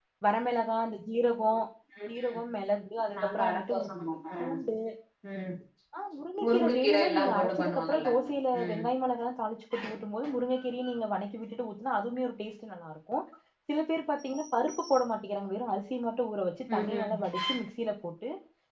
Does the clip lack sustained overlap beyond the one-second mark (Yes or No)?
No